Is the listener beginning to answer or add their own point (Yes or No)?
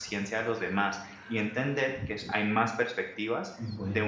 No